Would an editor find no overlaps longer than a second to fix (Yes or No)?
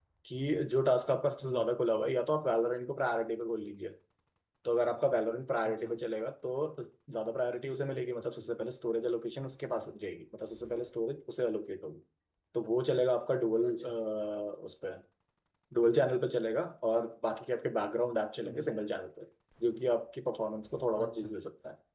Yes